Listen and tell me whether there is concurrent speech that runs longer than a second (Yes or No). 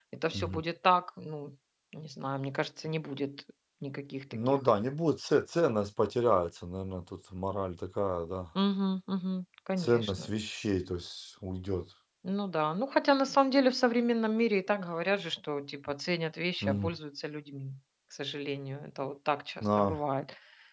No